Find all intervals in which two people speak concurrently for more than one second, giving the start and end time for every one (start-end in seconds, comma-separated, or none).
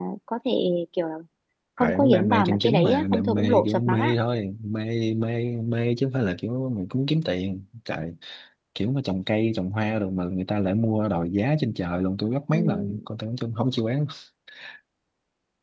1.8-4.1